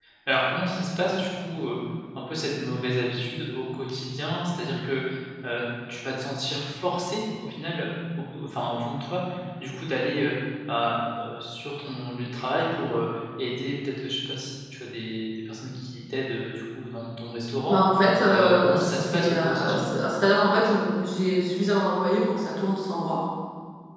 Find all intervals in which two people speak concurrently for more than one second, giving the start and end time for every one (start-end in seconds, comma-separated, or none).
18.3-19.8